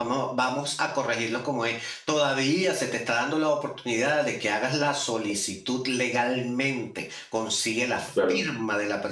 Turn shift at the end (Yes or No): No